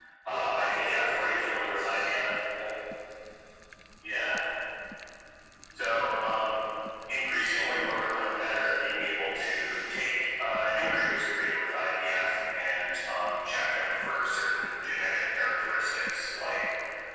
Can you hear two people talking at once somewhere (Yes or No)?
Yes